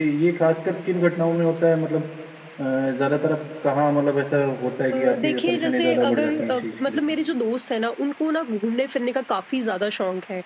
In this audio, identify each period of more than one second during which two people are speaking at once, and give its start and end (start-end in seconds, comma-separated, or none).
4.9-7.0